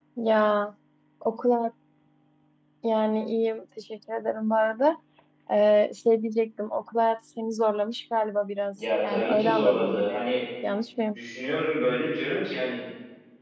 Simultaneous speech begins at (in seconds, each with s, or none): 8.8 s